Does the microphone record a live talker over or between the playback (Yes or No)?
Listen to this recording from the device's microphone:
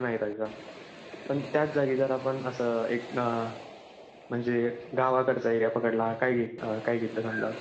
Yes